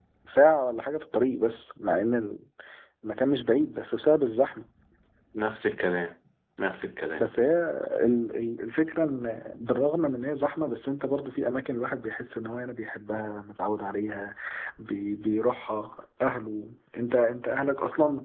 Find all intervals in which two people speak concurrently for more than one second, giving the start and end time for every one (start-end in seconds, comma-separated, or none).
none